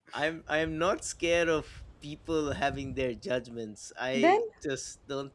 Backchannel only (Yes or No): Yes